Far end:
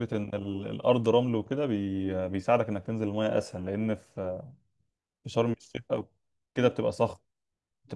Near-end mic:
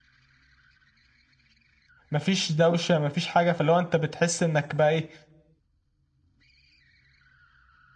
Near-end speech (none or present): present